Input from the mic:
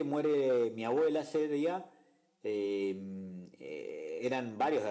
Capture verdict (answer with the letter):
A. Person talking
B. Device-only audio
B